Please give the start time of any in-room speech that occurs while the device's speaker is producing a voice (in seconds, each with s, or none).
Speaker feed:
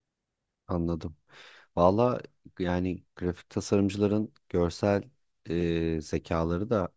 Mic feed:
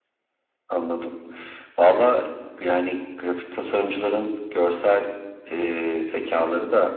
none